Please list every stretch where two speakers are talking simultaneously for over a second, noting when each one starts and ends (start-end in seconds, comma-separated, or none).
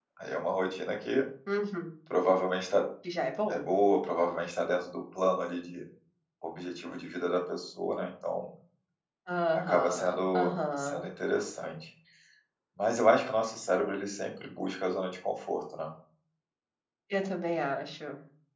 9.7-11.0